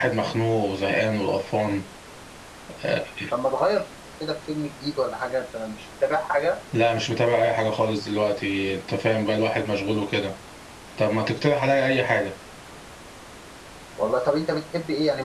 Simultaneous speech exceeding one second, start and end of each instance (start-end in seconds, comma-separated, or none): none